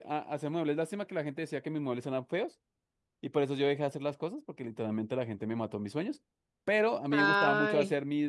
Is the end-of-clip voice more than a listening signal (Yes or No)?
No